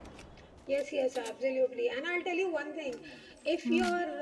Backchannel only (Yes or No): Yes